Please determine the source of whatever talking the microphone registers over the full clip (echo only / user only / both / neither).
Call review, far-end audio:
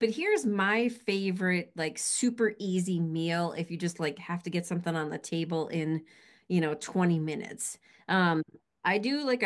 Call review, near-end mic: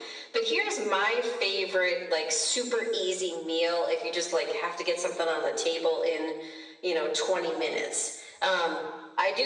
echo only